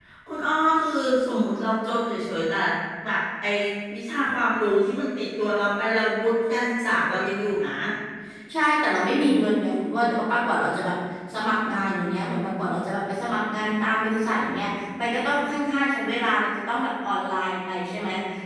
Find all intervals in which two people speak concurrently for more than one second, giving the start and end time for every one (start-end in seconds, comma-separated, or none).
none